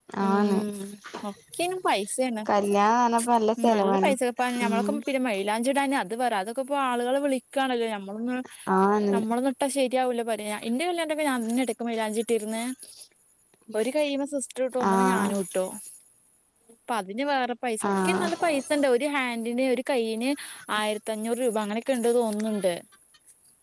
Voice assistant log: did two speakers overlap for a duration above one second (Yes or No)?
No